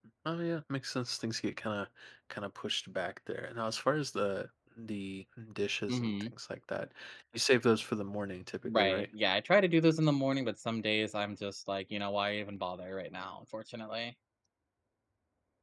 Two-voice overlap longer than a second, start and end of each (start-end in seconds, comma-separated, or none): none